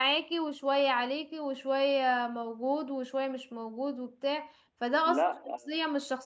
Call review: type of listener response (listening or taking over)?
listening